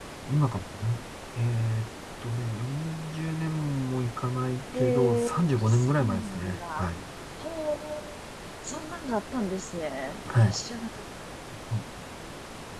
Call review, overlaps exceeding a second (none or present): present